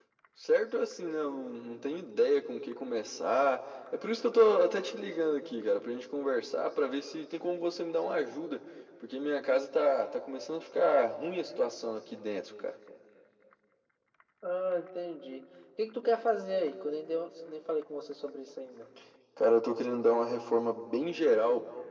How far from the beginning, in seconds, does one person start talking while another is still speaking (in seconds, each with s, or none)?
none